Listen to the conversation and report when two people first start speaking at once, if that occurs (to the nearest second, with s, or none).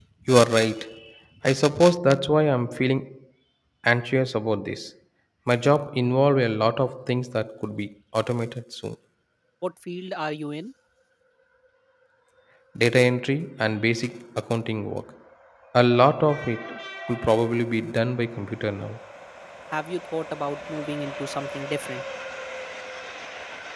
none